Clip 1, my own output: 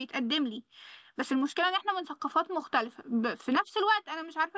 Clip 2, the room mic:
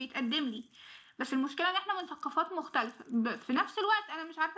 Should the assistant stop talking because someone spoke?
No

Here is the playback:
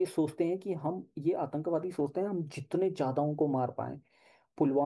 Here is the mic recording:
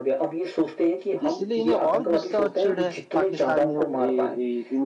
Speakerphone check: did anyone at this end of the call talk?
Yes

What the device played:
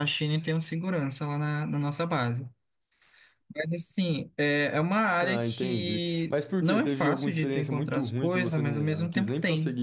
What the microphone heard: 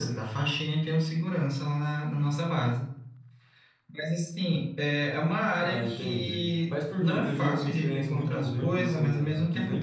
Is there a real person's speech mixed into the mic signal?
No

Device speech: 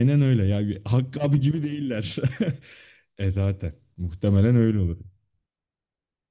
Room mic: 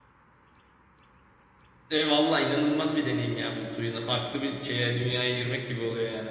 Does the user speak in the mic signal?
Yes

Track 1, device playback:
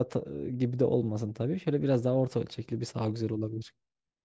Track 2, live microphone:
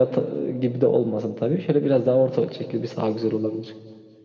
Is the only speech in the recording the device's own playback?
Yes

